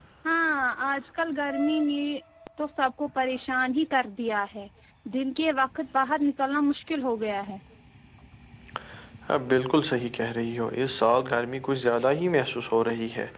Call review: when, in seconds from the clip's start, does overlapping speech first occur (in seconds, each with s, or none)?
none